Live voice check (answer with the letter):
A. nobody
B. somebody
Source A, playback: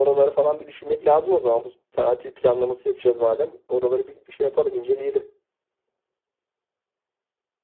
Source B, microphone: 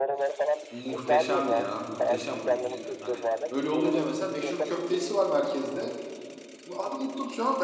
B